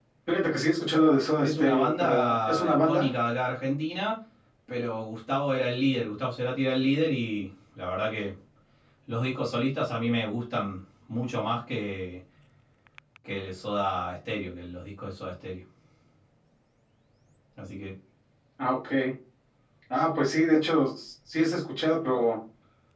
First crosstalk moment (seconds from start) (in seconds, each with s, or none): 1.4 s